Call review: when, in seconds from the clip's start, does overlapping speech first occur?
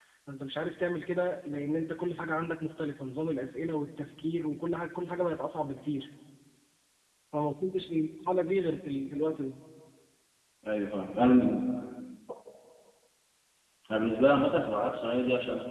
none

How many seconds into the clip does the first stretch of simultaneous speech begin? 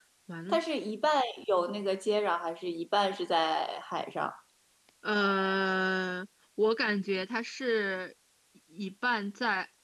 none

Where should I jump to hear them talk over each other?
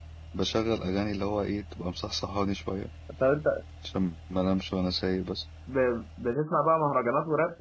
none

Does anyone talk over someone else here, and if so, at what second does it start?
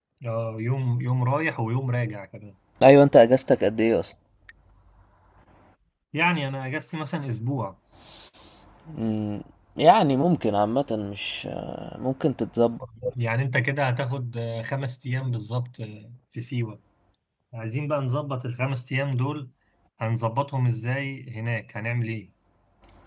none

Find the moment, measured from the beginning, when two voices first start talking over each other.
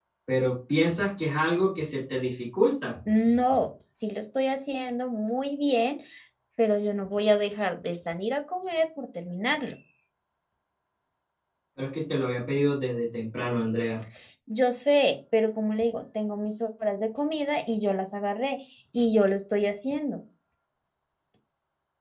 none

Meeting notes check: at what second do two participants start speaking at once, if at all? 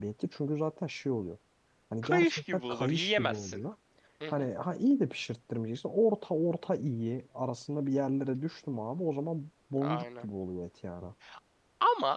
2 s

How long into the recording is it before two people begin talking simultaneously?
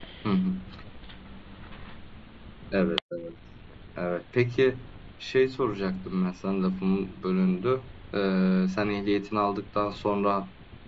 none

